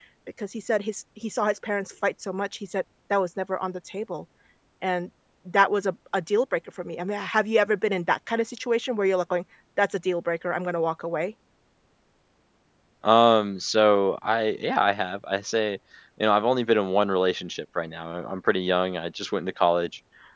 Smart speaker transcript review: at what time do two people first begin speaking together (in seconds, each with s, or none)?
none